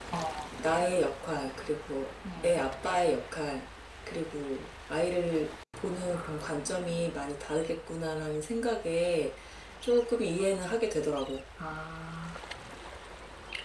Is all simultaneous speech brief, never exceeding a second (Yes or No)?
Yes